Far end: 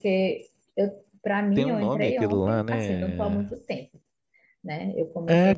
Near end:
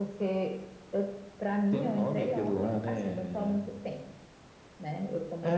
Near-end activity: none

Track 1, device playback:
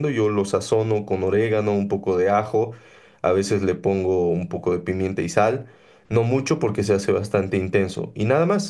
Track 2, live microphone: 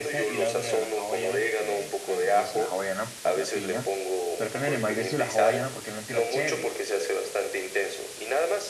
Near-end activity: present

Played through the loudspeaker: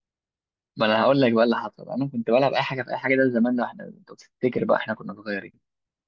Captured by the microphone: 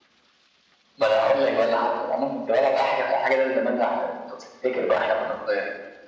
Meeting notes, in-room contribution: none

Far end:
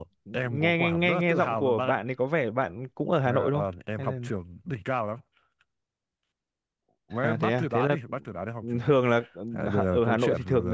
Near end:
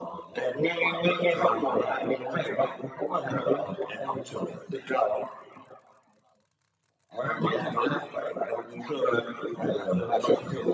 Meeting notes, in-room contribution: present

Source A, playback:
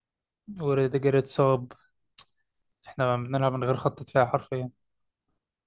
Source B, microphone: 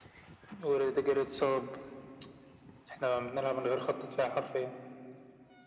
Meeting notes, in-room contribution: none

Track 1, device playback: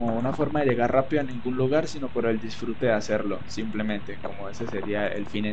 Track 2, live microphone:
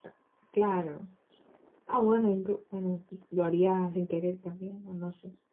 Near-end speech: present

